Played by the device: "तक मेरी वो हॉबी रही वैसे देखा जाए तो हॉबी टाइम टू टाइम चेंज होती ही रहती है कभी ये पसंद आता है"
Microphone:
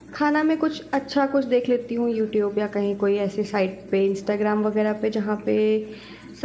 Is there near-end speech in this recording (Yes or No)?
Yes